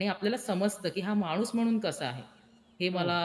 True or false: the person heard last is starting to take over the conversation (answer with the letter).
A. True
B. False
B